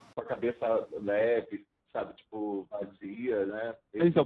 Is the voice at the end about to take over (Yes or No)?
Yes